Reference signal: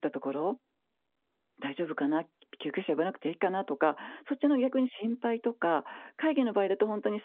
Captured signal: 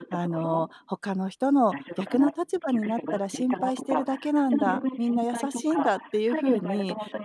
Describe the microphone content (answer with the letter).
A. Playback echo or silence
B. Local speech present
B